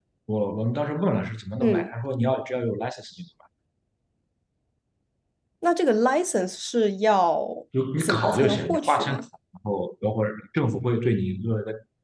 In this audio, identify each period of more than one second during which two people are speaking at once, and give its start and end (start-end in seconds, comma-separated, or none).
8.0-9.2